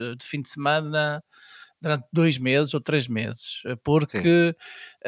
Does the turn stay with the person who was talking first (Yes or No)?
Yes